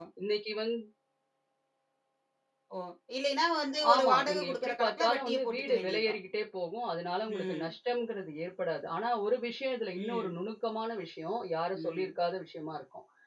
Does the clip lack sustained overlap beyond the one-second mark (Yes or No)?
No